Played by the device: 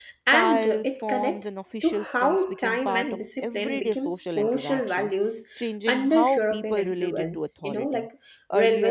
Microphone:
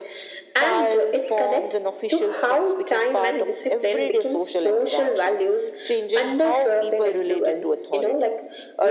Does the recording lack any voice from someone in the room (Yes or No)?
Yes